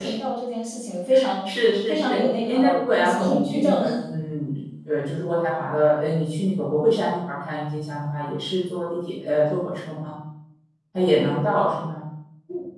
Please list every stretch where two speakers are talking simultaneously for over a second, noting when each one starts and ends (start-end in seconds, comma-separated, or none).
1.9-3.8